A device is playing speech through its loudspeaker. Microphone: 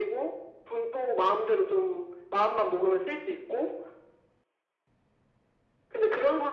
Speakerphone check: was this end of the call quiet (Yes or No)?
Yes